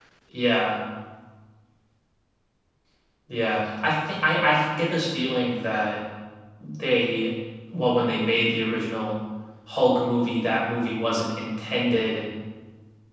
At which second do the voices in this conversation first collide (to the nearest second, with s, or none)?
none